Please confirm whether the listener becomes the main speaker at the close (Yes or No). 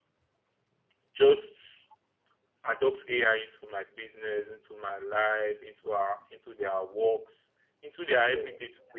No